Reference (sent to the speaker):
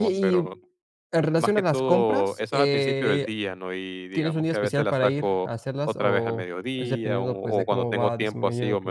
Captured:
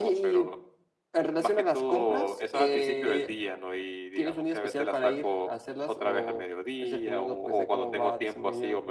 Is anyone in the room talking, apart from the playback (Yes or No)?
No